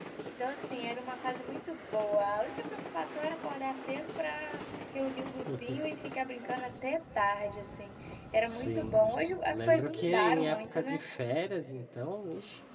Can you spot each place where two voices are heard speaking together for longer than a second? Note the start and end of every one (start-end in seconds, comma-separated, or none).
9.5-11.0